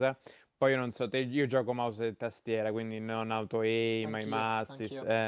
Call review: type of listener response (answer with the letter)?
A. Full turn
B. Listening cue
B